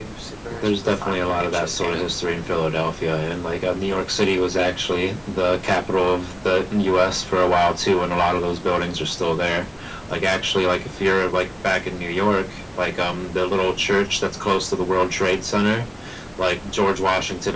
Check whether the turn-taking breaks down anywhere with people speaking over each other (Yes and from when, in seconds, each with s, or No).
Yes, from 0.5 s